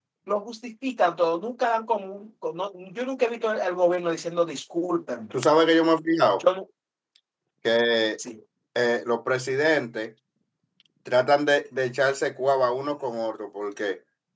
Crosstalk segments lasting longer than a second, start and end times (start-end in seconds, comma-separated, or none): none